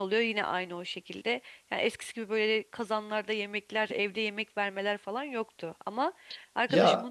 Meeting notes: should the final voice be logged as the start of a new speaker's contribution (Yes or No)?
No